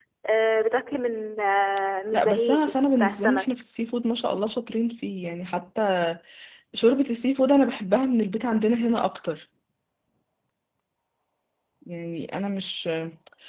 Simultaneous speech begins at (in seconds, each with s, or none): 2.1 s